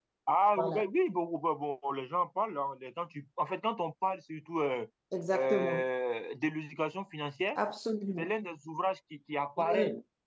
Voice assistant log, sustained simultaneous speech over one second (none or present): none